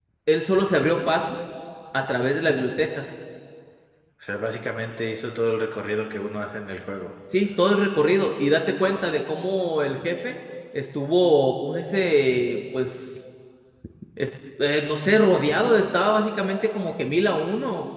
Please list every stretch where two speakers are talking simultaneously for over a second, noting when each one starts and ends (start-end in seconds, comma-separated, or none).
none